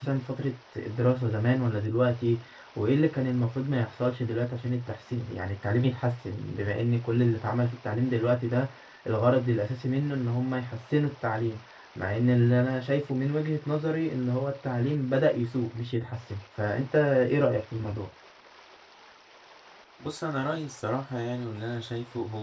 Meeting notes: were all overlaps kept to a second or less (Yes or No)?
Yes